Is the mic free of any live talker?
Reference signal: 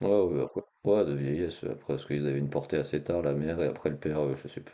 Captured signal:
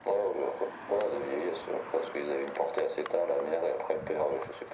Yes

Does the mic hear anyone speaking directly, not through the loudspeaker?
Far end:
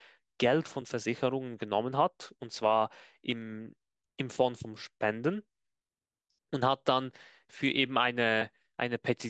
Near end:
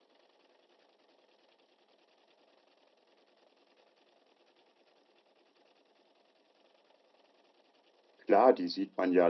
Yes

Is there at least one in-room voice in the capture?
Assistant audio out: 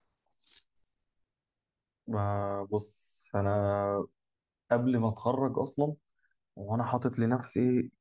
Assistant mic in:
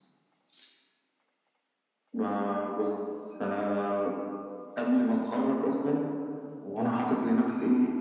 Yes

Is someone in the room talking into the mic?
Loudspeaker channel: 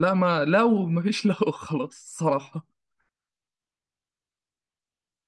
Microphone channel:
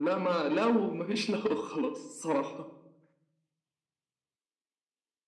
No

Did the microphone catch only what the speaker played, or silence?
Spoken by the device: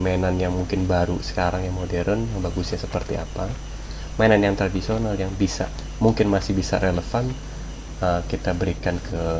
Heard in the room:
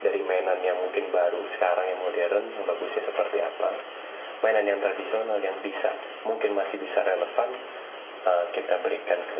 Yes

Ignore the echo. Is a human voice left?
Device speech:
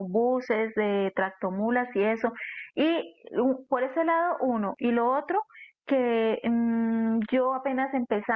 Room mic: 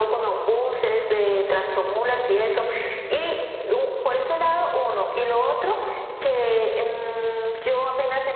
No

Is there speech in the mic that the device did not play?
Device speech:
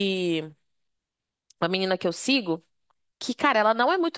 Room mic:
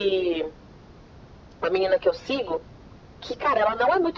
No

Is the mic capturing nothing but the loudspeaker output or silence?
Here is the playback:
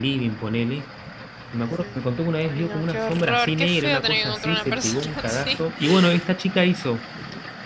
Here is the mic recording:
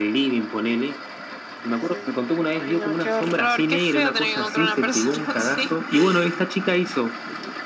Yes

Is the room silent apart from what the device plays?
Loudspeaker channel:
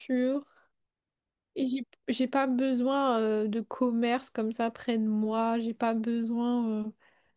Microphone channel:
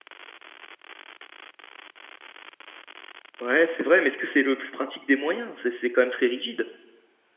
No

